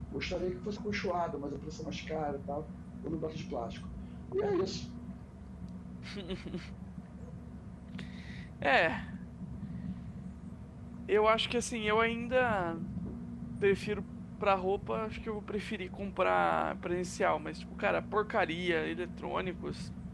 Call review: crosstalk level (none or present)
none